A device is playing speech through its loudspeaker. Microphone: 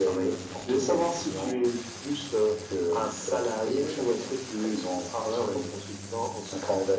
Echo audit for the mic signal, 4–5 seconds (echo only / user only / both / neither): echo only